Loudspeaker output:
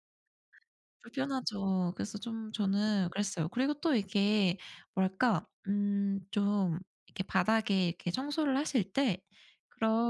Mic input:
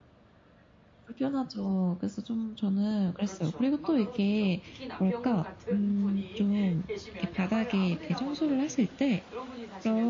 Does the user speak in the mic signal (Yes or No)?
Yes